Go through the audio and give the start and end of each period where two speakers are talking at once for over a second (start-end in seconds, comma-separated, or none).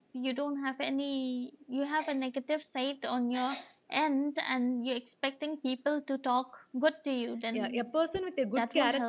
none